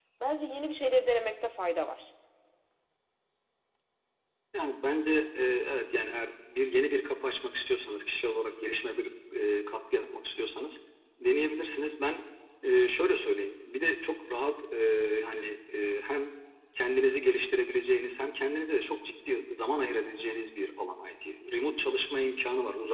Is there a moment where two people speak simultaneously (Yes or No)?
No